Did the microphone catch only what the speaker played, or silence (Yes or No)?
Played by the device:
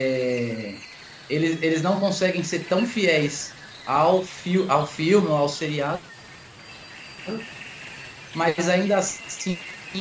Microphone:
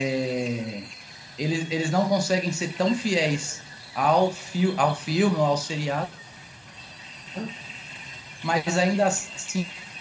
Yes